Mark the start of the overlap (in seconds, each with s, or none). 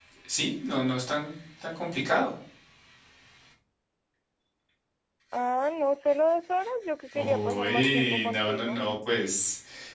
7.2 s